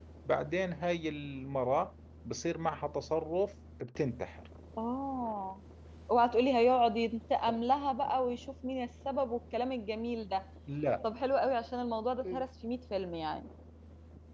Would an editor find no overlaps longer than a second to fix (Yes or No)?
Yes